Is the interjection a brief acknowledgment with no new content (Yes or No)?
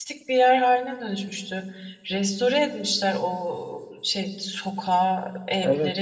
No